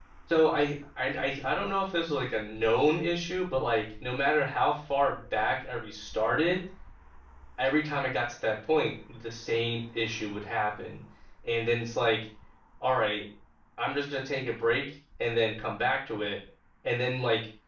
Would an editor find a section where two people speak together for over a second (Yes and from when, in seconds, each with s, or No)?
No